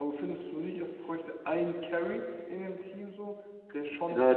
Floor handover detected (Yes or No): Yes